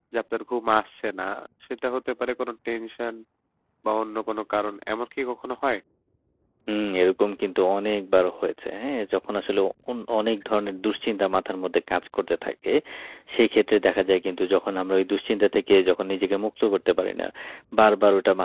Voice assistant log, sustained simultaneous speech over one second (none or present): none